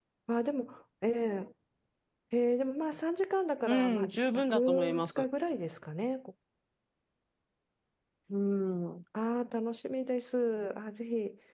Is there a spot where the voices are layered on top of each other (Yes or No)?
Yes